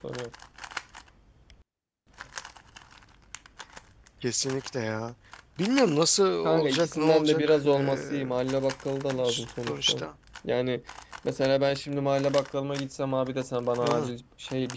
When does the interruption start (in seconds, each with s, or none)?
6.4 s